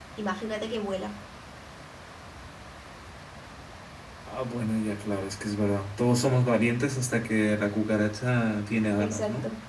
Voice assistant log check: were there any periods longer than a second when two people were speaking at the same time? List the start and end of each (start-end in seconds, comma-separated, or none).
none